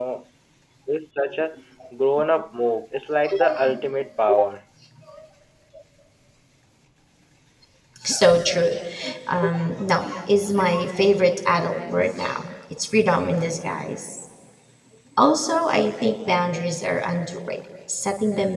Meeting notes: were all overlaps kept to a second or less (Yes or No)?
Yes